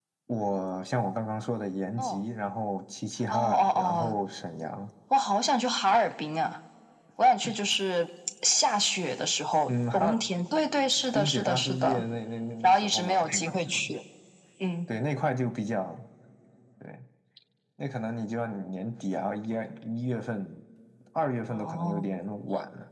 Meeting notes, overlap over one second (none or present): present